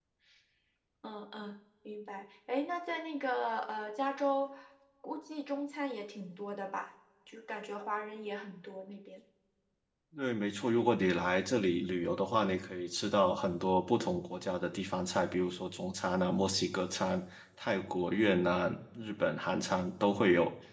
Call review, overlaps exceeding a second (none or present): none